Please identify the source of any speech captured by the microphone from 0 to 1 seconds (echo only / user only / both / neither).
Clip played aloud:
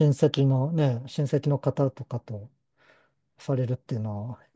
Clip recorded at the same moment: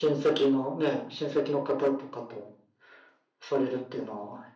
echo only